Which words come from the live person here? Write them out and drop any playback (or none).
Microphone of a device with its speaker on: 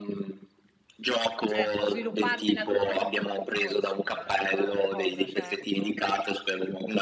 Certo, sviluppartela tutta per conto tuo, insomma, è un'altra cosa, certo.